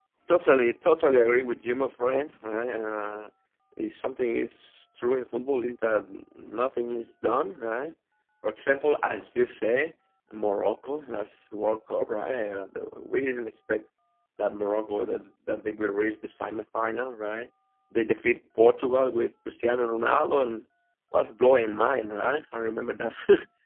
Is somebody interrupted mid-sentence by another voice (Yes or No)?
No